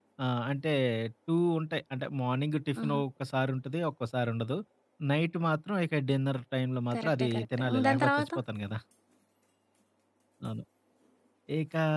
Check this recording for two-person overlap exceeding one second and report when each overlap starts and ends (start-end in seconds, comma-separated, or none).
6.9-8.3